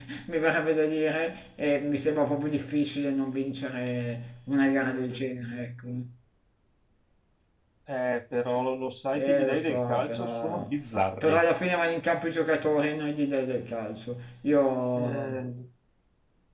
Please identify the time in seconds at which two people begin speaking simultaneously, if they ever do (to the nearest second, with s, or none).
9 s